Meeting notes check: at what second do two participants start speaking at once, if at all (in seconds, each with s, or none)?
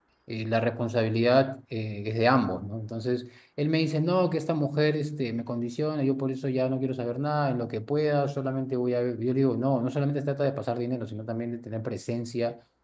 none